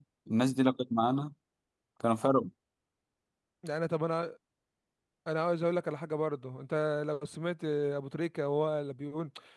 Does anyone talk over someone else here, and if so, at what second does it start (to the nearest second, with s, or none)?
none